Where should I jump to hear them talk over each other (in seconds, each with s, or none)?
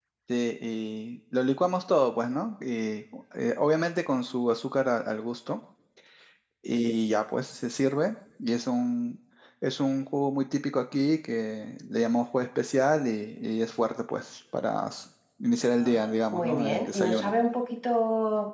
15.8 s